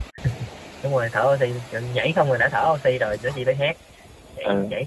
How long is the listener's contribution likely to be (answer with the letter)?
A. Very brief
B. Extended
A